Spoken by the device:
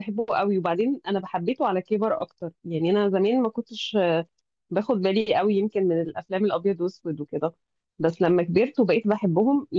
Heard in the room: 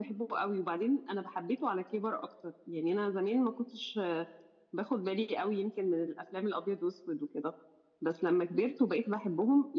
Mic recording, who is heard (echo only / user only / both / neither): echo only